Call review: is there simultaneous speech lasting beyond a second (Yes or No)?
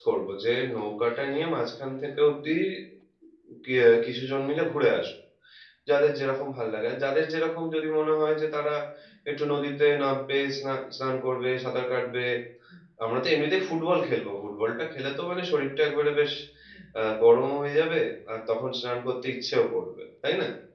No